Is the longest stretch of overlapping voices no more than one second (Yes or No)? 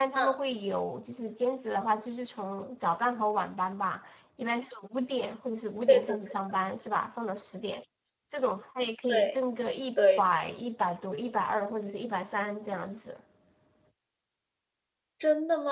Yes